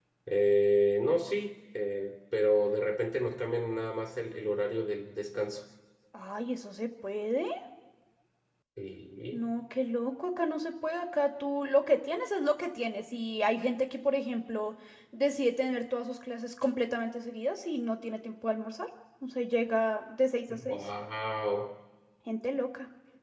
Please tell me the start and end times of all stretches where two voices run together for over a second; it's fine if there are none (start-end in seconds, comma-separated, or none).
none